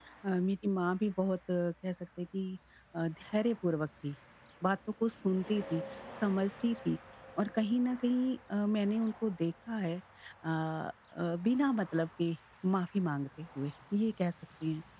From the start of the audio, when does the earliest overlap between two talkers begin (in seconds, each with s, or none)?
none